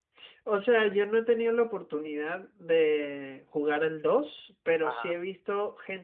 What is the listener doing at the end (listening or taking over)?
listening